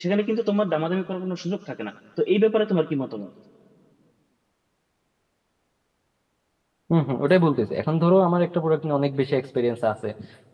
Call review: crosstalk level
none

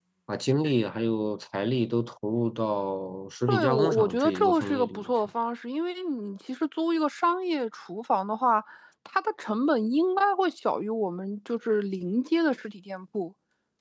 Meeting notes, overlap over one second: present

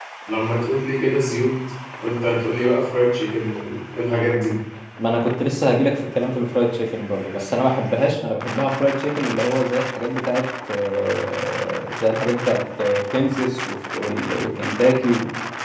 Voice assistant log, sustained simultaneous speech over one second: none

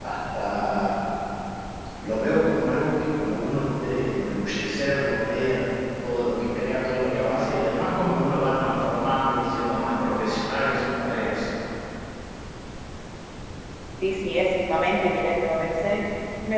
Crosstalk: none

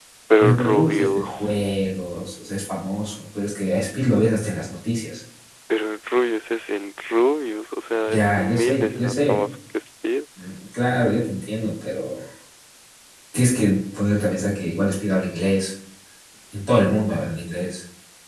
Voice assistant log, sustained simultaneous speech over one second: present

